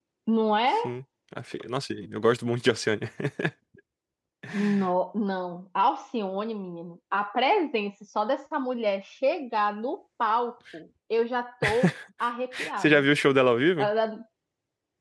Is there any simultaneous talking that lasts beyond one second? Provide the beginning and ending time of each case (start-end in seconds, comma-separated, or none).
none